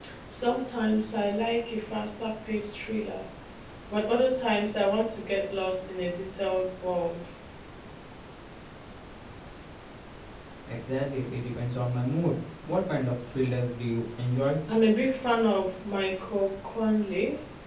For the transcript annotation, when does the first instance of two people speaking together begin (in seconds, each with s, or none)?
none